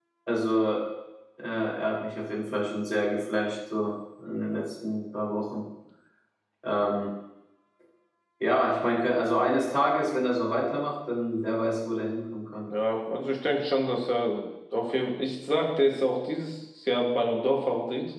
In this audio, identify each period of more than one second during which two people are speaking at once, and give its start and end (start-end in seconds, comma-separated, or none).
none